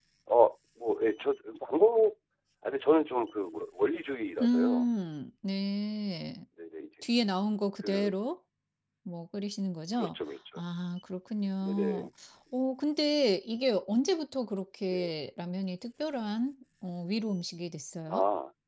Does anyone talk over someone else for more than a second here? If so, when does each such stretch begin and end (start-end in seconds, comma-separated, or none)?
none